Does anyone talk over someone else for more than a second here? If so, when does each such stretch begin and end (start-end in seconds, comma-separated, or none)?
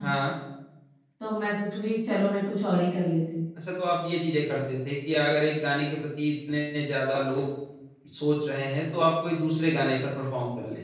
none